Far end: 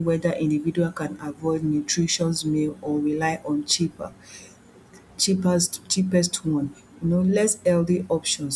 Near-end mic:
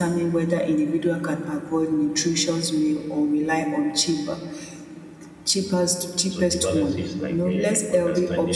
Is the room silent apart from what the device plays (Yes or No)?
No